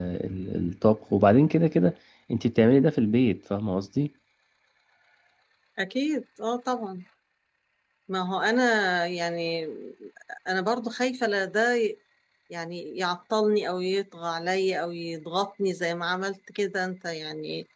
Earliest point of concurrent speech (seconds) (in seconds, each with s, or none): none